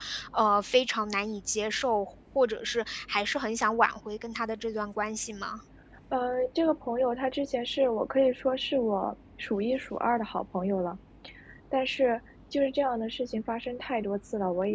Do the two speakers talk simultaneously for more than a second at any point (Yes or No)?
No